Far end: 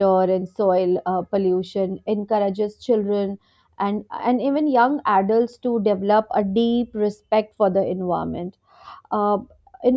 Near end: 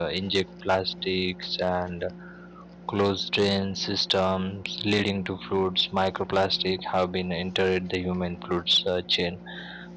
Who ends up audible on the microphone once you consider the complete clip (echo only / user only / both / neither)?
user only